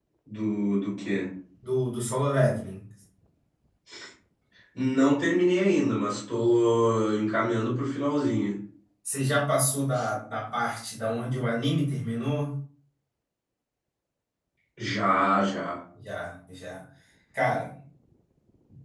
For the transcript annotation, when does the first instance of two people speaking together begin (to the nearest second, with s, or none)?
none